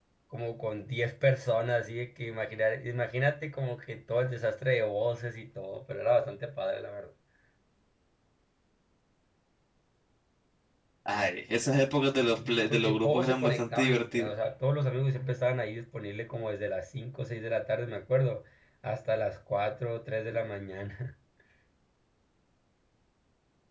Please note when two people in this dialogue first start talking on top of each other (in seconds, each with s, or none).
12.1 s